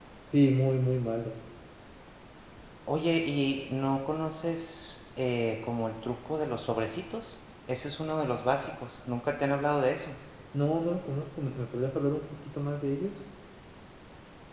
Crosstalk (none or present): none